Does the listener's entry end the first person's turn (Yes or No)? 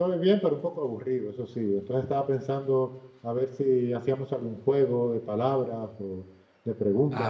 Yes